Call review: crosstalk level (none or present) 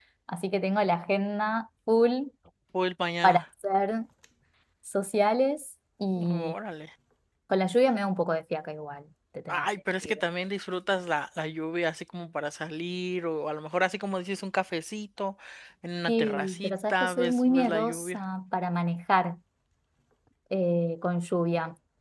present